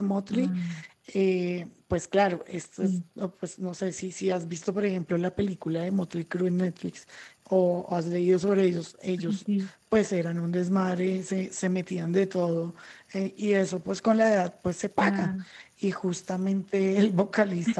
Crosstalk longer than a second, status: none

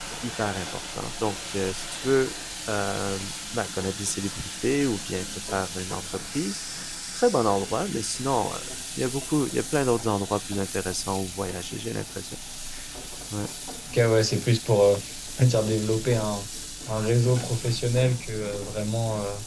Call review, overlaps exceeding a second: none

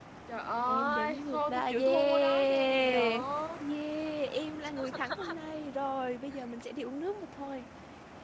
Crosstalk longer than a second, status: present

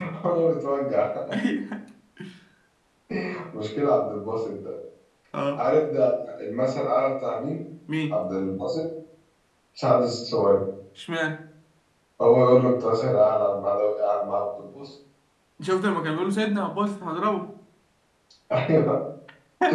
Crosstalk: none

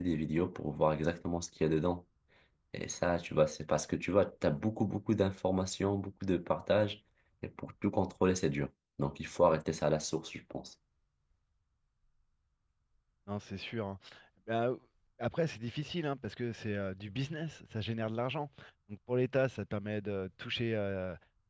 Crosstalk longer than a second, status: none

